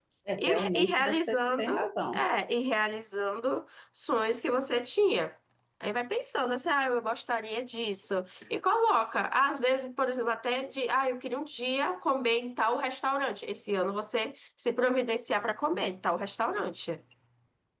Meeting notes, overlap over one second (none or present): present